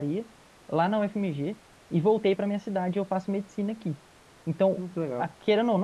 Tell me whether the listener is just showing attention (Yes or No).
Yes